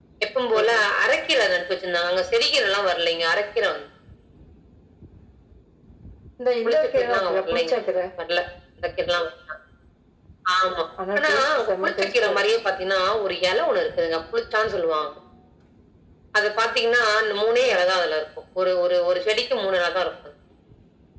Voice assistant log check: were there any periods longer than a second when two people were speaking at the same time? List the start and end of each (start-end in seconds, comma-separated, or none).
6.7-7.9, 11.2-12.6